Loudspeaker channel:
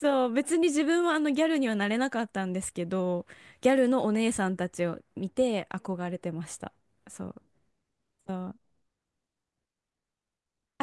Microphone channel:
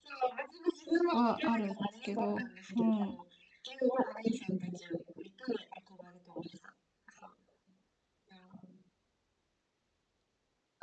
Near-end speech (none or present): present